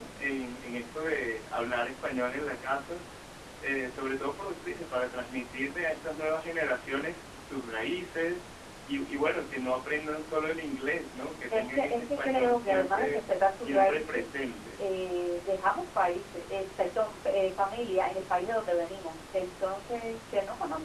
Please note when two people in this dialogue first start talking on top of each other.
11.5 s

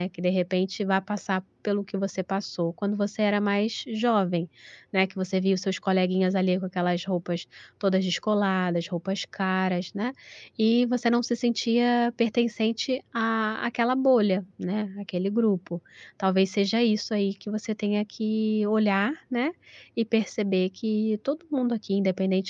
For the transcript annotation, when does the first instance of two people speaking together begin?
none

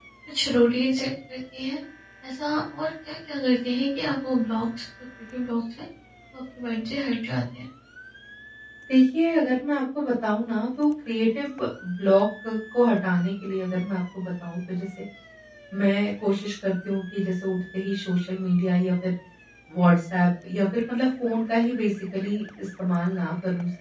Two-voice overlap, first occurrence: none

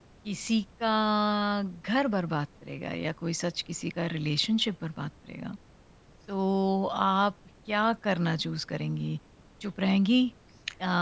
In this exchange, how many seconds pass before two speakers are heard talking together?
none

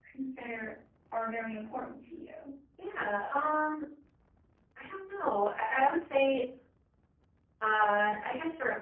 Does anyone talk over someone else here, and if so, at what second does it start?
none

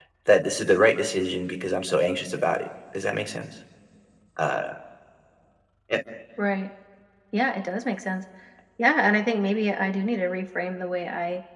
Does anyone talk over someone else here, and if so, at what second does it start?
none

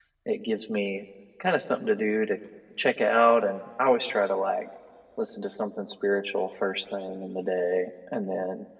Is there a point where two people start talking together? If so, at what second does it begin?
none

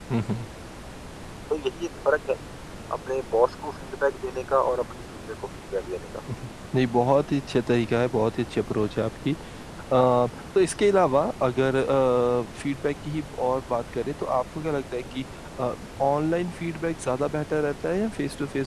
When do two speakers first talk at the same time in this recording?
none

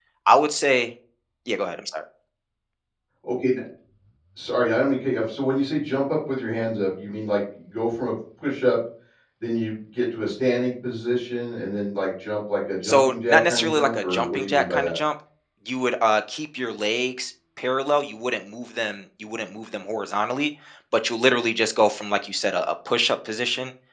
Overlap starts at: 12.8 s

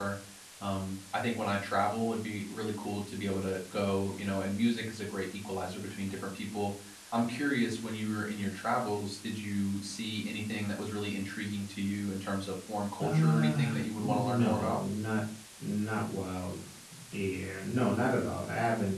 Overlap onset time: 13.0 s

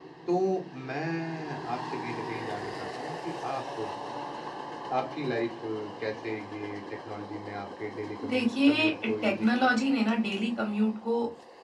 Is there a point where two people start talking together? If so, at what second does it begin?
8.2 s

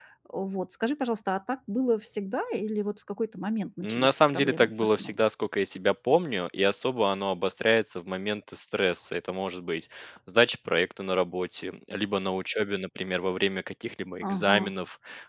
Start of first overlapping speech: 3.8 s

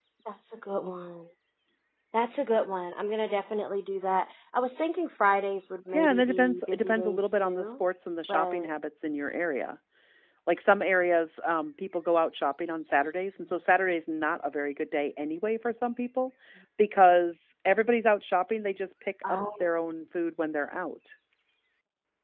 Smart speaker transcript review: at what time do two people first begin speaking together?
5.9 s

